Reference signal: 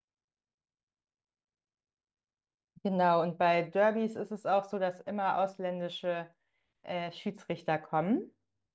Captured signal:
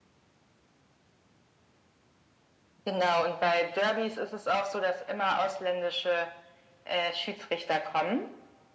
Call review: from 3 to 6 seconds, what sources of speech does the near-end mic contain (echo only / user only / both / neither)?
echo only